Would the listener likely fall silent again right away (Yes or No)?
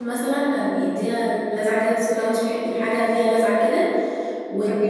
Yes